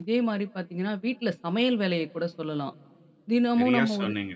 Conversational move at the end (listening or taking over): taking over